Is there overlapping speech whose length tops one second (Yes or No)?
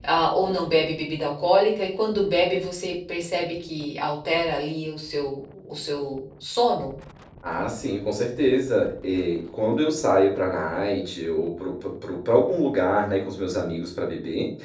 No